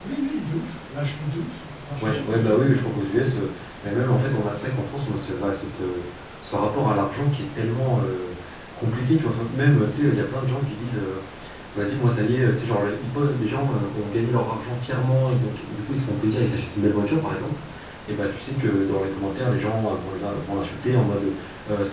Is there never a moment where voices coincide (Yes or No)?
No